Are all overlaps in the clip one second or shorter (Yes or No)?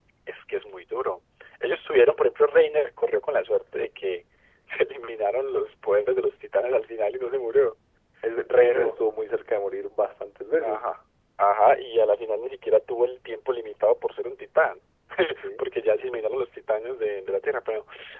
Yes